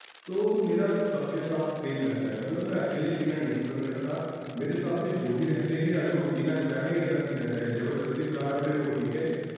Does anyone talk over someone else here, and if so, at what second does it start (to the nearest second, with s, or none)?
none